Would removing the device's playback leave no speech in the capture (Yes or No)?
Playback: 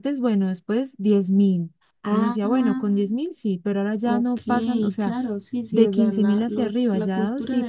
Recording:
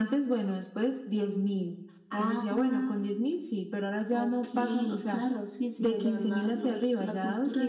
Yes